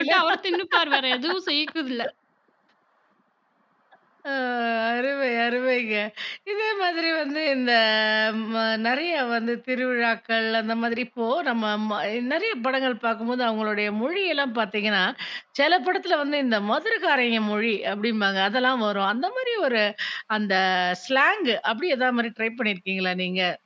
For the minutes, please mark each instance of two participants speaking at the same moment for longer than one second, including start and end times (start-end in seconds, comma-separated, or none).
none